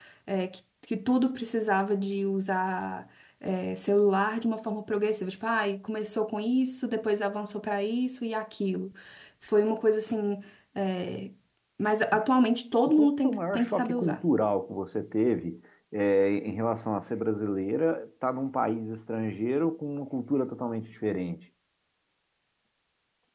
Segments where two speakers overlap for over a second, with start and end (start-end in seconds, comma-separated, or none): 12.9-14.2